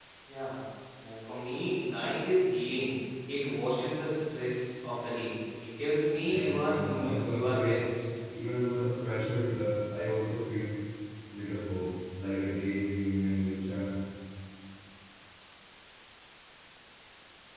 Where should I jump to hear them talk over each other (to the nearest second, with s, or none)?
6 s